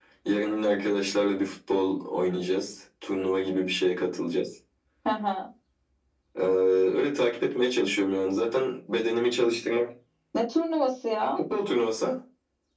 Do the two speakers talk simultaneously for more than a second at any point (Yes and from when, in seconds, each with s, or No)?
No